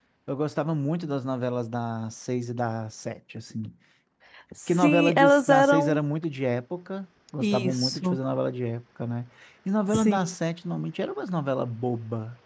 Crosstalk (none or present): present